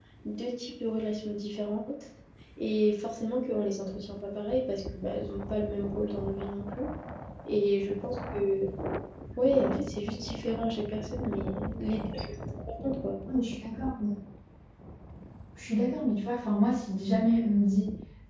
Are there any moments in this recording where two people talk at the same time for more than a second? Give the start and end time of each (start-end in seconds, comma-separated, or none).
none